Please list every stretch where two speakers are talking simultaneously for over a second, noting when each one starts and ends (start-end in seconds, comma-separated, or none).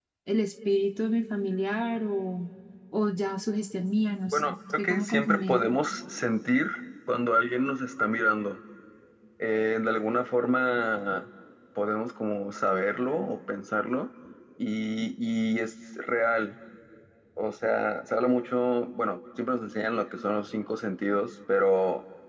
4.3-5.6